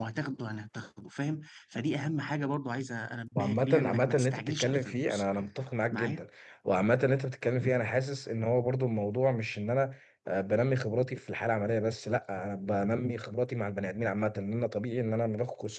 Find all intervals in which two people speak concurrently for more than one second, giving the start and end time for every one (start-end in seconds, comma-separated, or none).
3.4-5.2